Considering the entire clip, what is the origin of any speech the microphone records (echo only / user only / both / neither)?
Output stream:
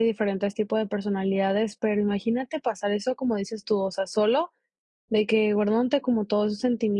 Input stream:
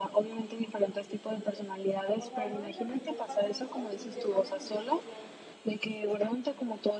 both